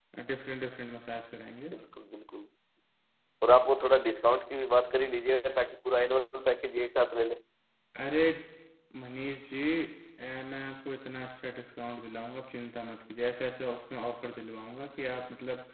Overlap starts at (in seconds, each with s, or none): none